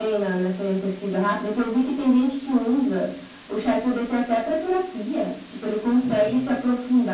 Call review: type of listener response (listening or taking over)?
listening